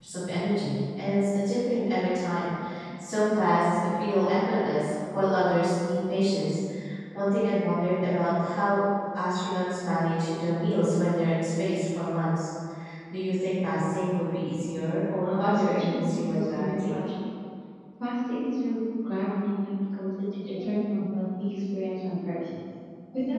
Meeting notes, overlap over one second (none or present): present